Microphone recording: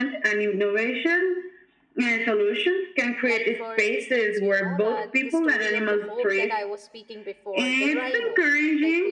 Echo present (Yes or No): Yes